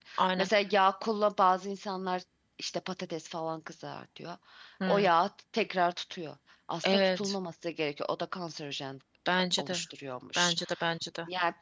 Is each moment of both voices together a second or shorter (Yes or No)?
Yes